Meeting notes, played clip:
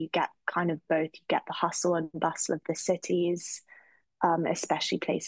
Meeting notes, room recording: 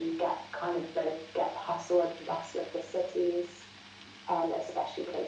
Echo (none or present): present